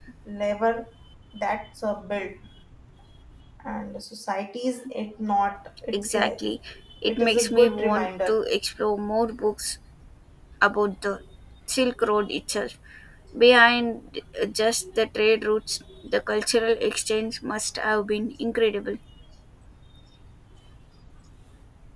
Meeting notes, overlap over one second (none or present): present